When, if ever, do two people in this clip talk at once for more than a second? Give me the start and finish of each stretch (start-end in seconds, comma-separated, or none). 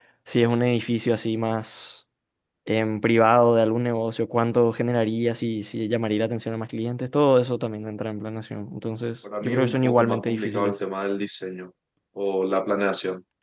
9.4-10.7